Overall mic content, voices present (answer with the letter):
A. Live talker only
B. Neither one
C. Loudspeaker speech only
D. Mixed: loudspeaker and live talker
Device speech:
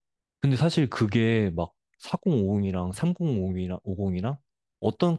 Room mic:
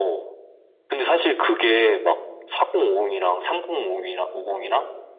C